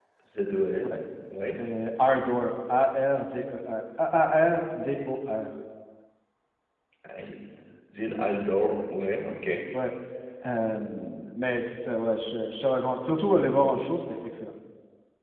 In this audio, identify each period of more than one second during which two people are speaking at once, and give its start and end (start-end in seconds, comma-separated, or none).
none